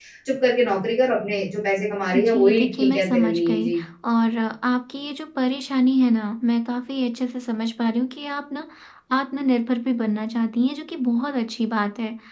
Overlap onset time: 2 s

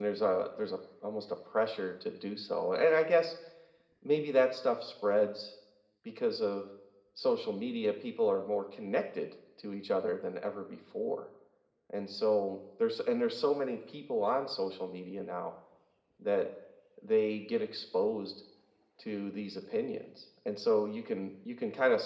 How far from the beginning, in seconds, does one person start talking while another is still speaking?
none

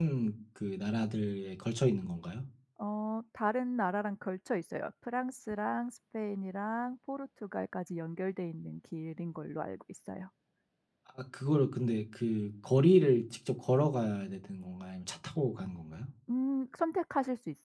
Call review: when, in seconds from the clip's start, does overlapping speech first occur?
none

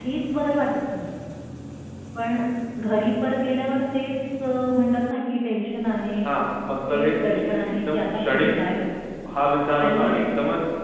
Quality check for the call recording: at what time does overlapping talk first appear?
7 s

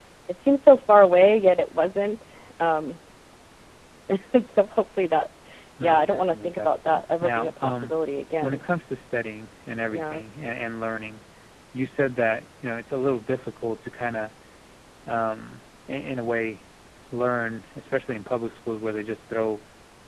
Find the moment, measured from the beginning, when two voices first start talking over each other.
6 s

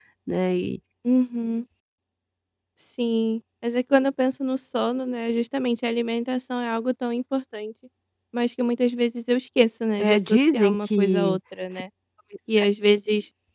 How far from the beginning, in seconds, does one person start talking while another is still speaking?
10 s

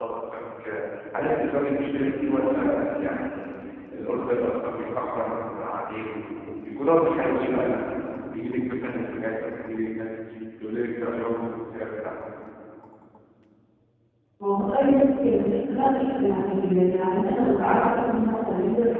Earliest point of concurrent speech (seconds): none

